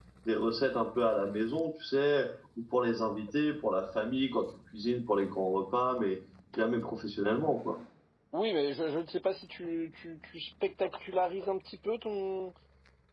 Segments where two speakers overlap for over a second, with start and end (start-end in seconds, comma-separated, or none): none